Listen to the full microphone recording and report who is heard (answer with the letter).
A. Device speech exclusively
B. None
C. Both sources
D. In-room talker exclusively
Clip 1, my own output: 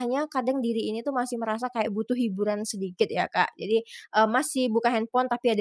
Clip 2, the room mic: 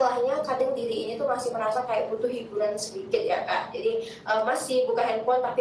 A